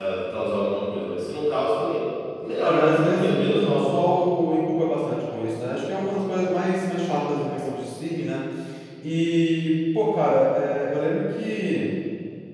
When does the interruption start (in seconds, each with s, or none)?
2.6 s